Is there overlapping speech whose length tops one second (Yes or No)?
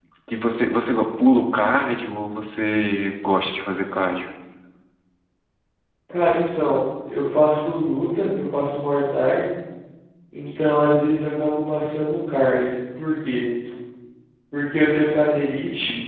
No